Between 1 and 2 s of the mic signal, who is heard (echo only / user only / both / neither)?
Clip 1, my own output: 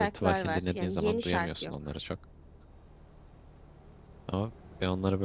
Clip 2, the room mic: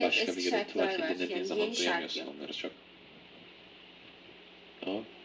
echo only